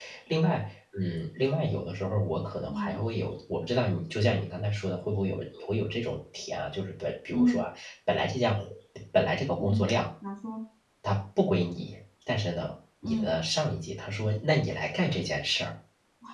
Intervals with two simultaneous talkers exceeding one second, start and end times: none

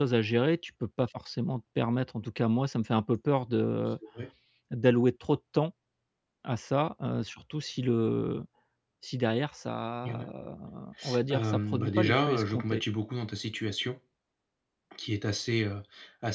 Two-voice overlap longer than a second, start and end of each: 11.3-12.8

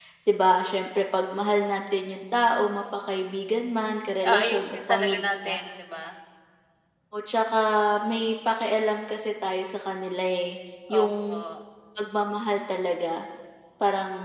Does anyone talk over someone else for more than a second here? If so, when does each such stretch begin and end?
4.3-5.5

